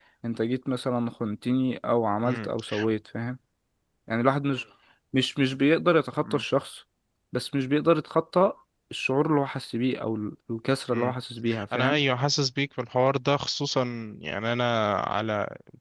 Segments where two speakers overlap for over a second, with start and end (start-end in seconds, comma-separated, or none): none